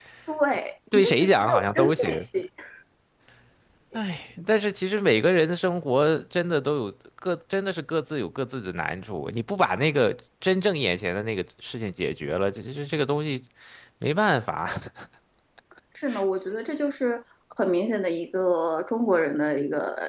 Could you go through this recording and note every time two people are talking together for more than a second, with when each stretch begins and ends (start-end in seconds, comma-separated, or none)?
0.9-2.3